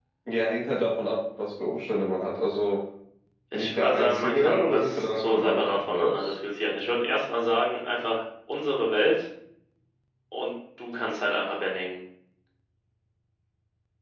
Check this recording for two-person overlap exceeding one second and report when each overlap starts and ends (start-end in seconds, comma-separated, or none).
3.5-6.3